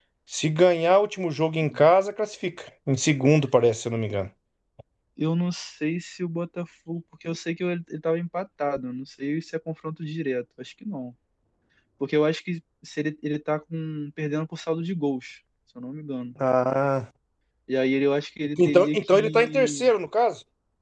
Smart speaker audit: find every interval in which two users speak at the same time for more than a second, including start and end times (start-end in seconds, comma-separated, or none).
18.6-19.9